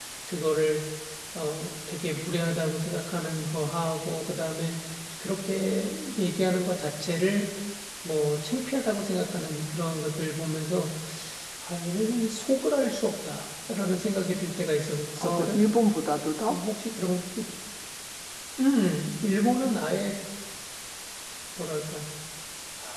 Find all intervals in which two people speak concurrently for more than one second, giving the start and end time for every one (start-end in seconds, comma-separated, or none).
none